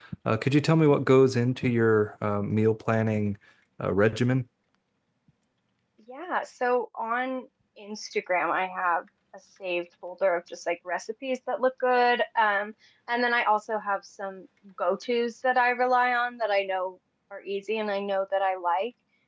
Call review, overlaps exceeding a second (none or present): none